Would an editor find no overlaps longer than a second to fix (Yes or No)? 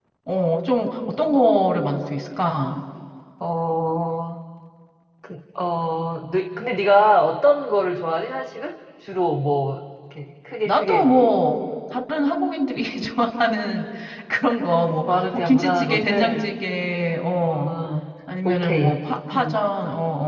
No